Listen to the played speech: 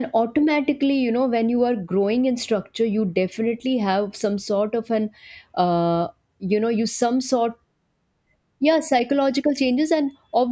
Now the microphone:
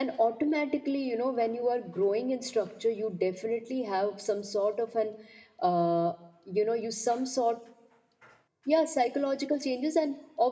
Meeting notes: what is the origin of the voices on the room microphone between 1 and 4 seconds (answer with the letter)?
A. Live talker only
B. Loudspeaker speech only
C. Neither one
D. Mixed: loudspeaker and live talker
B